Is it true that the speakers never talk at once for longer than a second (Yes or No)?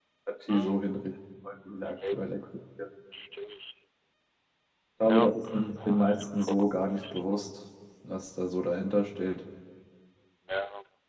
No